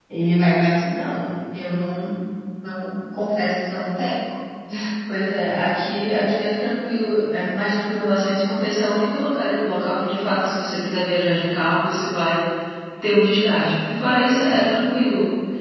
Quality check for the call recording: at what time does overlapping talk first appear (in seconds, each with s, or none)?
none